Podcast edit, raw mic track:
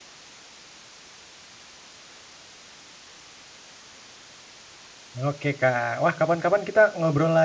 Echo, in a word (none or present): none